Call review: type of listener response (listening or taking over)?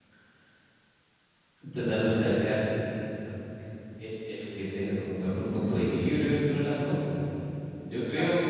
taking over